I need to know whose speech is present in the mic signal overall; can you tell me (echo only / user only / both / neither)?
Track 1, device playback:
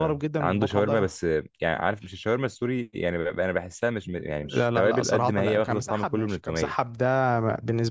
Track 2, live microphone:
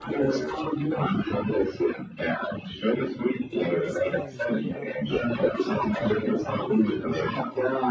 both